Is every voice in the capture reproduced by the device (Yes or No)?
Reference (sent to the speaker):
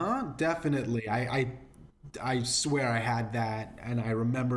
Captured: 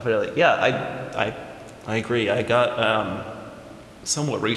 No